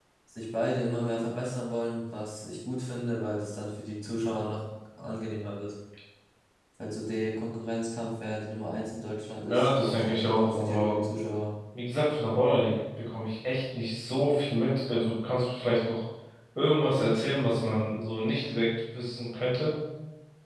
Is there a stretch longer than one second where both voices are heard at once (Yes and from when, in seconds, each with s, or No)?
Yes, from 9.4 s